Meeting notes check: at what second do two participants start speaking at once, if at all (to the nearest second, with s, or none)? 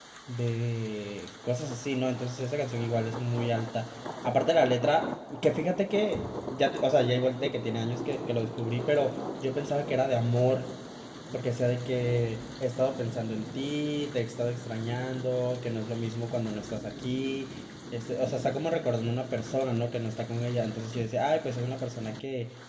none